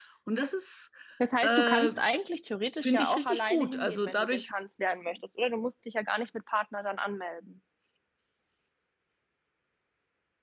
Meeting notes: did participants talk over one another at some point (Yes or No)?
Yes